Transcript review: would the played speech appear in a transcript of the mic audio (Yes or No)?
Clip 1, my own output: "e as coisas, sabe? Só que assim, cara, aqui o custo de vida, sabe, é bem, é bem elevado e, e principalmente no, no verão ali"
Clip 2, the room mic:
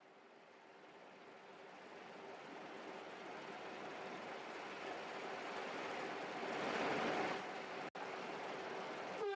No